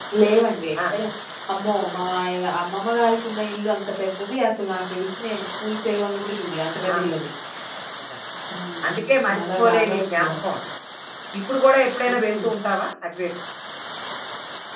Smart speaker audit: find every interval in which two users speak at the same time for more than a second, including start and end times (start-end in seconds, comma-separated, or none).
8.9-10.3